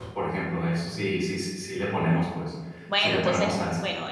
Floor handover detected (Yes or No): Yes